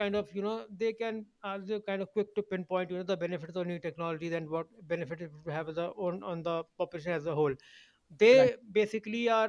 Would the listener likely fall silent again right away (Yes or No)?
Yes